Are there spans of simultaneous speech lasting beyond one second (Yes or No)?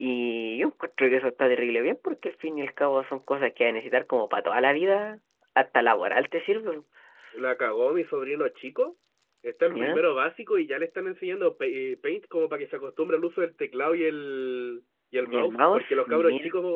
Yes